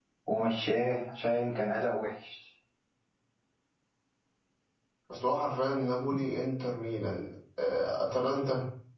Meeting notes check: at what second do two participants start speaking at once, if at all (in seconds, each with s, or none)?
none